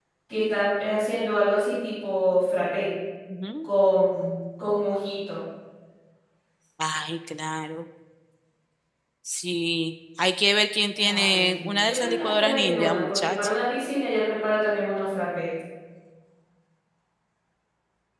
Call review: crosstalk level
present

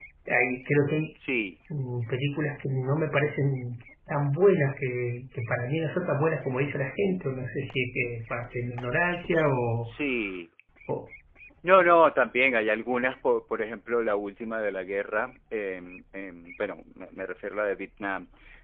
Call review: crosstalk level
none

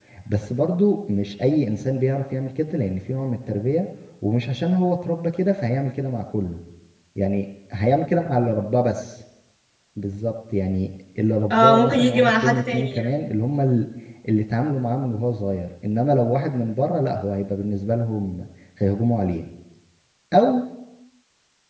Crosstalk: present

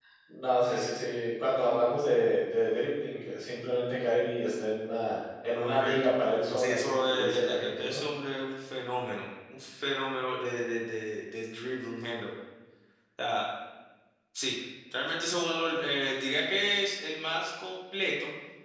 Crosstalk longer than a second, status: present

